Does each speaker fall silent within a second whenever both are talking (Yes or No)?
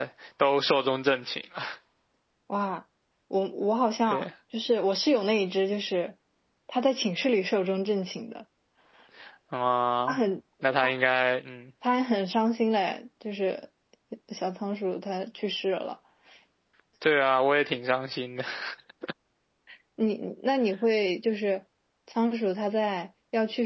Yes